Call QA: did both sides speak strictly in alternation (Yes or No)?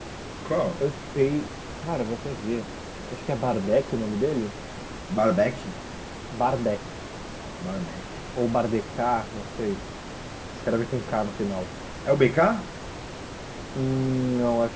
Yes